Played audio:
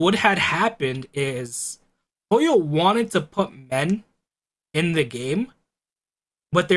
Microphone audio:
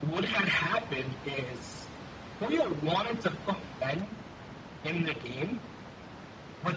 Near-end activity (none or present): none